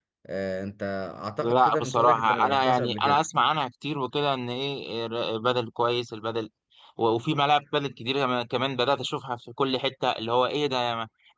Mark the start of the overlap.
1 s

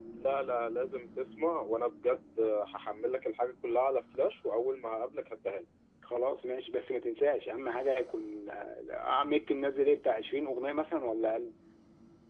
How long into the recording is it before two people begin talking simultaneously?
none

